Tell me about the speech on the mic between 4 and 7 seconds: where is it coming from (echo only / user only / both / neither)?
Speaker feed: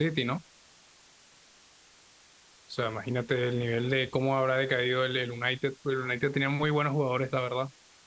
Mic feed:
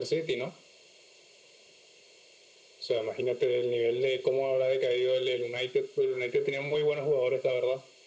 echo only